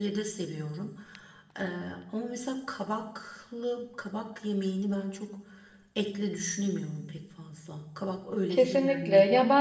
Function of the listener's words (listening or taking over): taking over